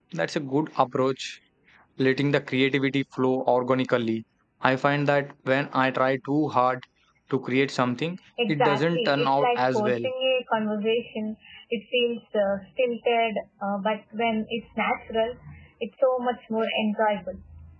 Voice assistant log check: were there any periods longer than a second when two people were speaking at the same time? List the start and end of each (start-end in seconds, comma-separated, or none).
8.5-10.0